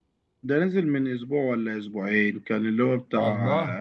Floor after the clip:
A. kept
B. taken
A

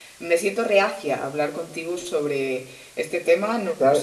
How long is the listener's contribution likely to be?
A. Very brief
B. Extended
B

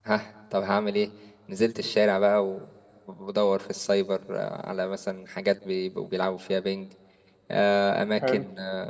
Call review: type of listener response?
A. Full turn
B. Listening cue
B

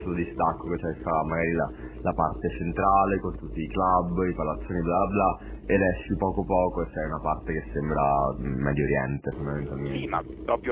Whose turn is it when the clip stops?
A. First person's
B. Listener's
B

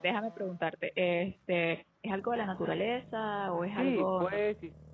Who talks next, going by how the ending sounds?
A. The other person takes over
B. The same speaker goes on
A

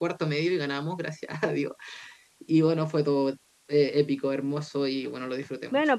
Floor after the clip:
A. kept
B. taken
B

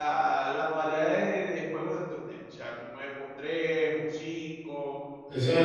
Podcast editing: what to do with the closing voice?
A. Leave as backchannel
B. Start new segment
B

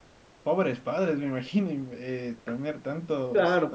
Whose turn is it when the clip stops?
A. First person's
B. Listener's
B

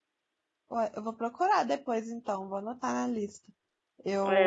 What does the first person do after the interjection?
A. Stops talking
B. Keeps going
A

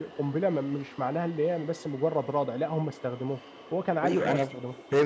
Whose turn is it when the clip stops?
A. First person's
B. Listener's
B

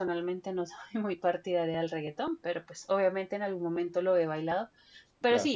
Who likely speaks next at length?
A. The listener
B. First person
B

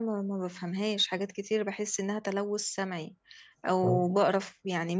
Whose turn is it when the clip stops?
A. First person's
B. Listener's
A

